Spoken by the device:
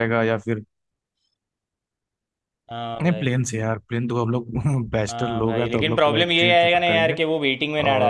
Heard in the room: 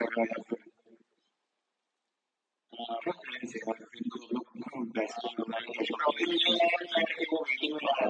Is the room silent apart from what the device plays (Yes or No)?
Yes